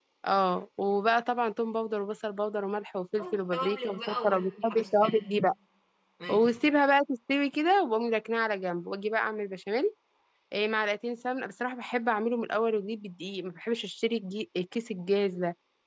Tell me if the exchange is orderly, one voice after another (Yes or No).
No